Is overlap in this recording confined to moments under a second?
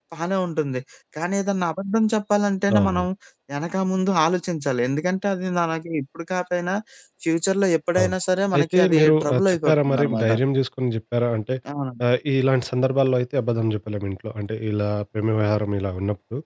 No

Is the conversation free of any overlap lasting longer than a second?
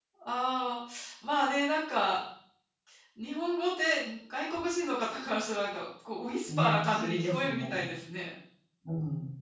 No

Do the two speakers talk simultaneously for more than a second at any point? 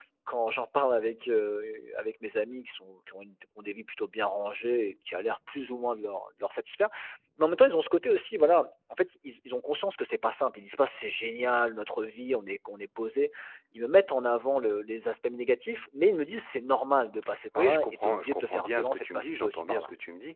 Yes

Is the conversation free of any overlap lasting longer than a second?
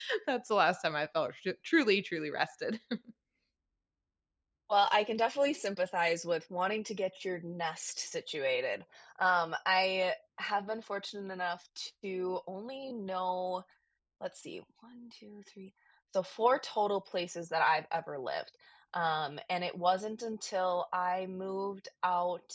Yes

